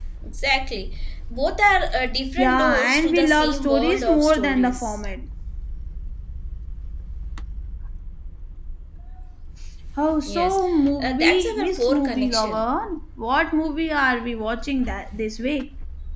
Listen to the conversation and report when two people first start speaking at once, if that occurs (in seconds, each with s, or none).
2.4 s